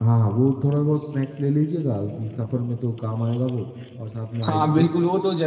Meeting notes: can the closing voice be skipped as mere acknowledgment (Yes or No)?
No